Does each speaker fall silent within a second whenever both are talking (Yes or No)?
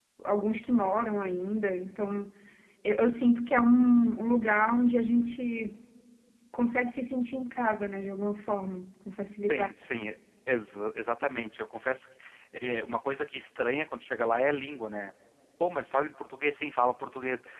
Yes